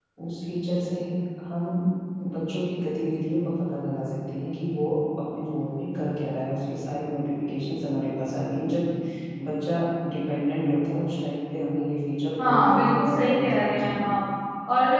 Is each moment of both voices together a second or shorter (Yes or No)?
No